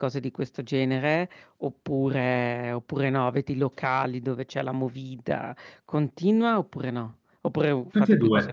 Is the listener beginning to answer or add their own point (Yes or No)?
Yes